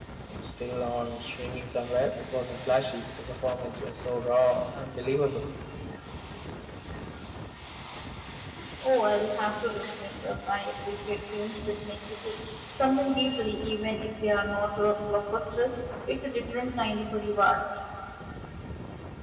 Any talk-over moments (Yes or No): No